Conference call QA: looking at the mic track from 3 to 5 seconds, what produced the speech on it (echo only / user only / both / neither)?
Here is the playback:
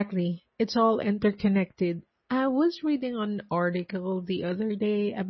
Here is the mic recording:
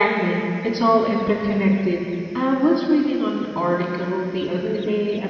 echo only